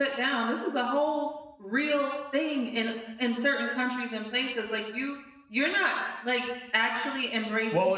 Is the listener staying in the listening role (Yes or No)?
No